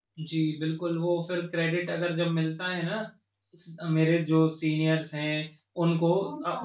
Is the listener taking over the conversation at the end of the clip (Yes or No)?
No